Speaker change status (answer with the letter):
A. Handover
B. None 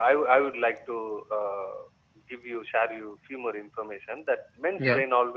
B